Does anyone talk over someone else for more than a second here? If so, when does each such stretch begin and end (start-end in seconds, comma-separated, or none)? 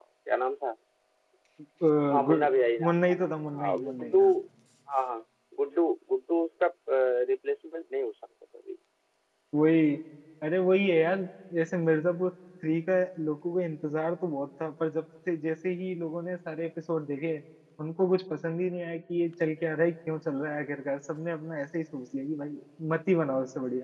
2.8-4.2